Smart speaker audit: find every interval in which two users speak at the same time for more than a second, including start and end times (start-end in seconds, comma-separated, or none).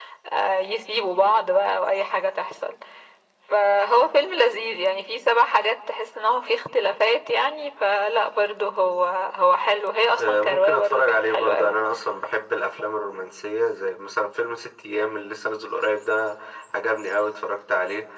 10.2-11.8